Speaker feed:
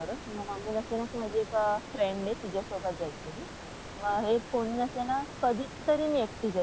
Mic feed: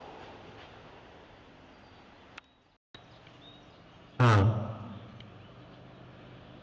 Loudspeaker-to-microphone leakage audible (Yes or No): No